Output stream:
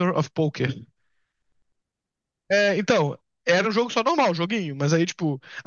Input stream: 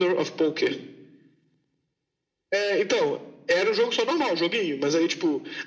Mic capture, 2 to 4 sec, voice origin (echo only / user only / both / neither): echo only